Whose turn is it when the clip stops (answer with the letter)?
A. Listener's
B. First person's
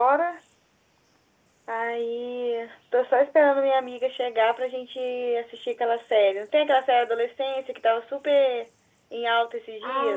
A